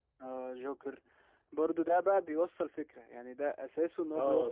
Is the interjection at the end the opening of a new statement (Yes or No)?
Yes